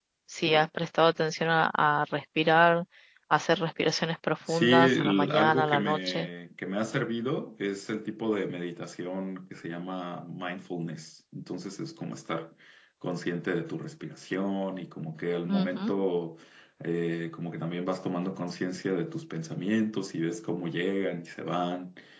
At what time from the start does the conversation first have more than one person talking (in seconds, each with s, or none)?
4.5 s